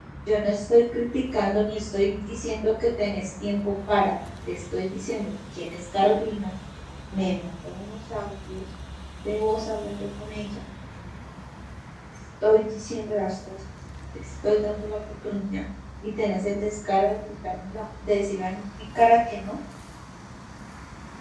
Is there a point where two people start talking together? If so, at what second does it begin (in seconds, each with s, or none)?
none